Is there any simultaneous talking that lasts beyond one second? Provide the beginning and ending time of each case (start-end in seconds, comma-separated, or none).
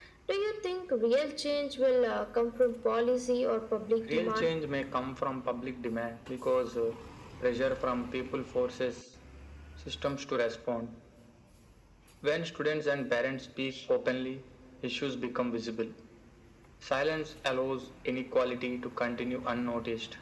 none